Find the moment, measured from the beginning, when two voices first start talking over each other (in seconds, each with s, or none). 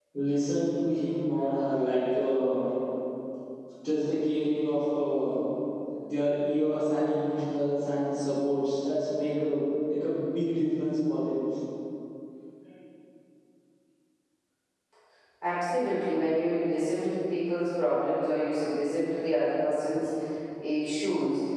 none